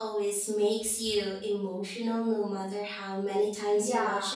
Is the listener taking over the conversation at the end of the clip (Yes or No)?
Yes